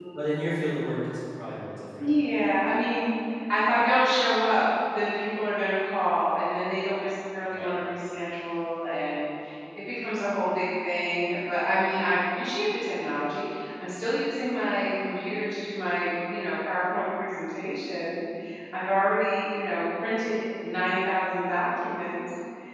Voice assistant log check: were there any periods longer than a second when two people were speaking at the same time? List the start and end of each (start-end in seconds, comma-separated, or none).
none